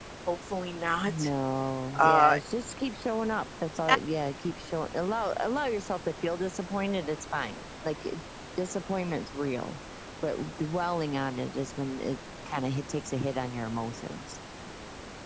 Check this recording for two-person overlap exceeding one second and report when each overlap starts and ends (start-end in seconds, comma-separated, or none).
none